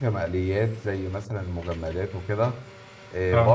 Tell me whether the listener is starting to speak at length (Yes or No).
No